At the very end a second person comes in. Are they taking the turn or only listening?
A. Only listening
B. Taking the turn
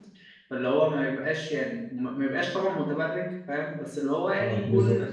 A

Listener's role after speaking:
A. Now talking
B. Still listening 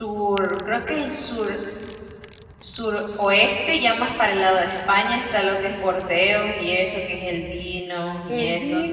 A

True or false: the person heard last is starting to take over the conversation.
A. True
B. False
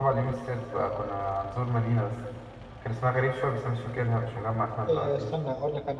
A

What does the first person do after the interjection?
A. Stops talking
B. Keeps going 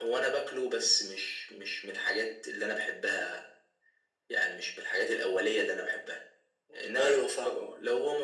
B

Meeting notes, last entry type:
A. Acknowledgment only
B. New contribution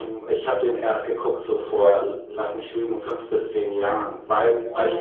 A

